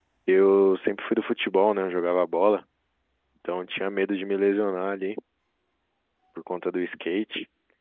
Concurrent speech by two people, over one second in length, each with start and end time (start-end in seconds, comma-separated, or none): none